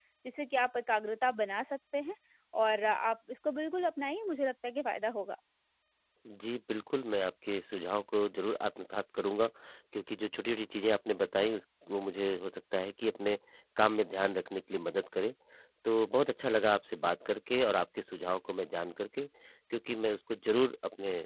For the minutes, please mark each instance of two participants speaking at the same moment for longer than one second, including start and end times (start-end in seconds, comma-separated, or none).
none